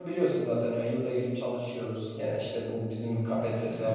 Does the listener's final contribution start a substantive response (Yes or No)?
No